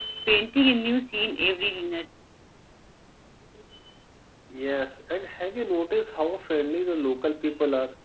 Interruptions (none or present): none